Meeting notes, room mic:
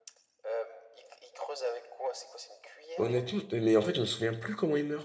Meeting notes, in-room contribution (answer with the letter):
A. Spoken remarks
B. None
A